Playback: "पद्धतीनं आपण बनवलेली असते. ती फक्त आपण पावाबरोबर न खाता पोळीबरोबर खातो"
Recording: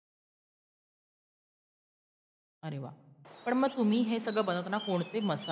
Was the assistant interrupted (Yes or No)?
Yes